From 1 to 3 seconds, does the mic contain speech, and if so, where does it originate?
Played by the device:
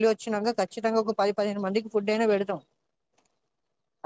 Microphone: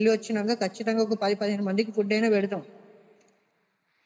echo only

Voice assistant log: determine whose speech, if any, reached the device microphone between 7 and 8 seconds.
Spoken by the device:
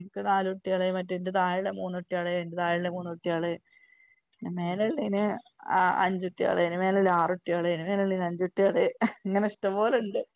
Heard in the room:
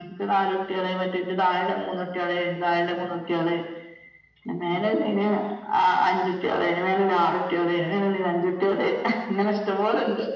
echo only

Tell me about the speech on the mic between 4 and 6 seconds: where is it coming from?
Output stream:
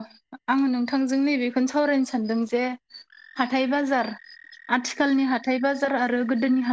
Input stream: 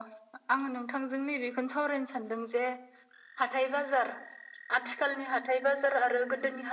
echo only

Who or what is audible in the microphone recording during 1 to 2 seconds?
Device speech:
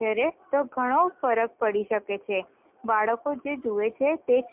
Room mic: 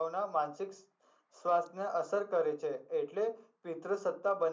user only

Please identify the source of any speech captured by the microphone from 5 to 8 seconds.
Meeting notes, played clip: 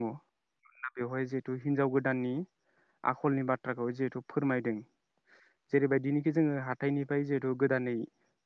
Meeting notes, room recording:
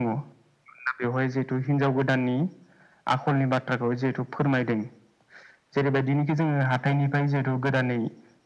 echo only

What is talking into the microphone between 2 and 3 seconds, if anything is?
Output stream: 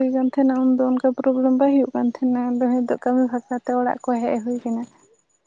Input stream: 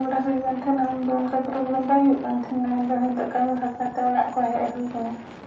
echo only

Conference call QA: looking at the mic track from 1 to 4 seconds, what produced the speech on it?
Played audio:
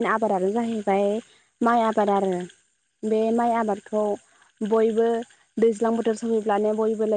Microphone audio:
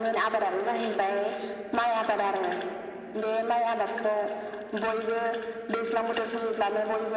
echo only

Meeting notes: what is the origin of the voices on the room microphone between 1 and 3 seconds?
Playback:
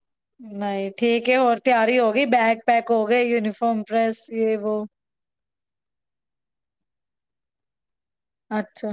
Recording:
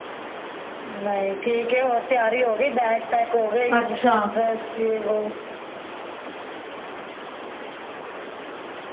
echo only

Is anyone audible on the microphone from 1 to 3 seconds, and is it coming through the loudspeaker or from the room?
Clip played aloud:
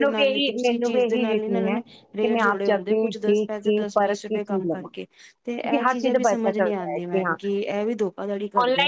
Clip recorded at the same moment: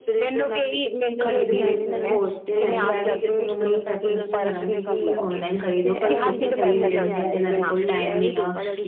both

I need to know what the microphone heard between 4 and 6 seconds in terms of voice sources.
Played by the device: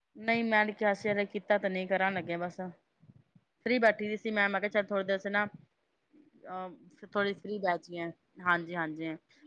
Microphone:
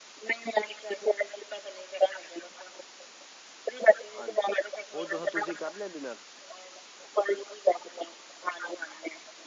both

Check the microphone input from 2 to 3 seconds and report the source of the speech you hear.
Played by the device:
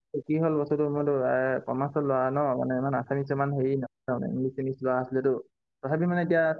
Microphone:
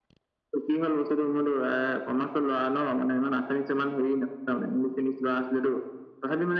echo only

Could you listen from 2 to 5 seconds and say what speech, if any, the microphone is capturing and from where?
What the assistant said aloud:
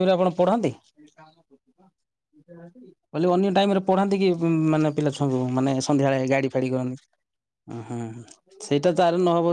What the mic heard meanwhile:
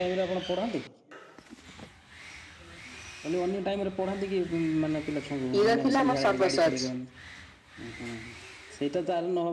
echo only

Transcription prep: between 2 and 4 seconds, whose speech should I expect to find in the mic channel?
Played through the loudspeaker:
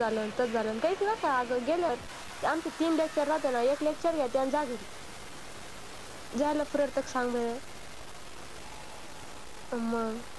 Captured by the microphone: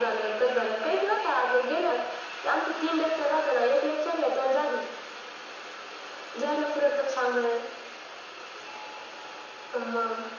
echo only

